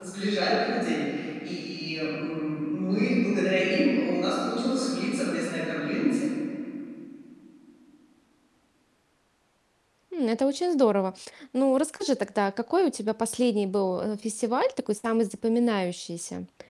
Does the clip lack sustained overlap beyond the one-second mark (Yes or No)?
Yes